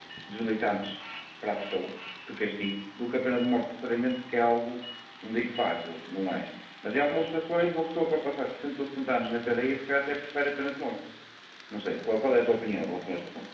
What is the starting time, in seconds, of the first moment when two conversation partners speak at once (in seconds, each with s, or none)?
none